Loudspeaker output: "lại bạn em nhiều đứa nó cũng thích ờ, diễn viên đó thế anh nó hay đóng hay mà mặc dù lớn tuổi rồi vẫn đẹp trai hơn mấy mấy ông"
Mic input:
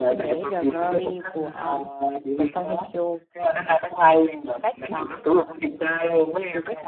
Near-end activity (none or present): present